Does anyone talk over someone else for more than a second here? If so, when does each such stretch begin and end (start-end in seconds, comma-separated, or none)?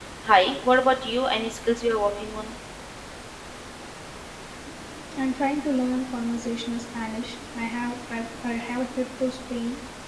none